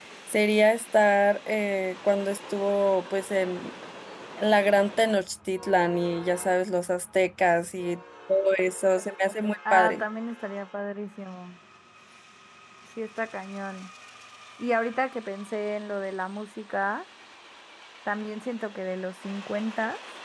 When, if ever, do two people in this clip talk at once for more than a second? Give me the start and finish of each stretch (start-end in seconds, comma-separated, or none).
none